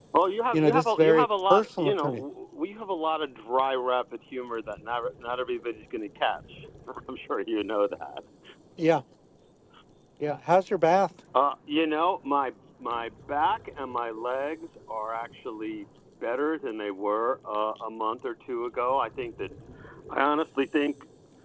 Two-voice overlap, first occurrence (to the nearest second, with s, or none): 1 s